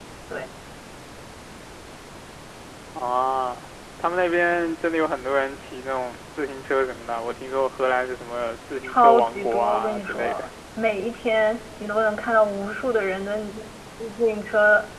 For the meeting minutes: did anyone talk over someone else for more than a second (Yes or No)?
Yes